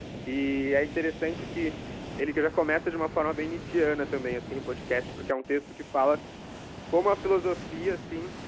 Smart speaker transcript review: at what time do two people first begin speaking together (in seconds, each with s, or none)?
none